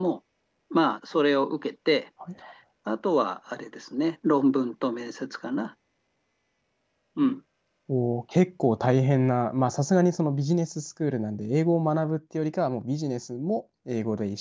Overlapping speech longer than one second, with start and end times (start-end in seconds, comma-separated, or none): none